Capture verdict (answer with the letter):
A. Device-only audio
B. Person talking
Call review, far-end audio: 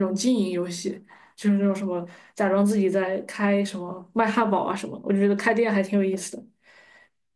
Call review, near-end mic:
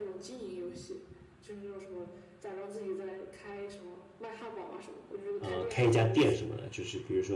B